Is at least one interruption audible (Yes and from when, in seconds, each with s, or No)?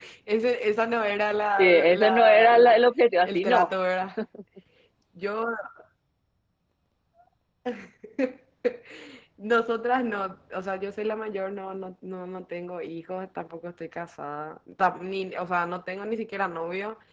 Yes, from 1.6 s